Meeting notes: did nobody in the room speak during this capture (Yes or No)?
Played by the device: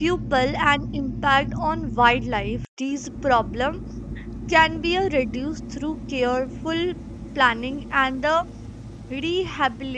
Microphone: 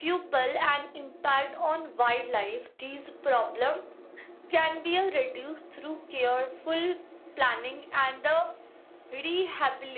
Yes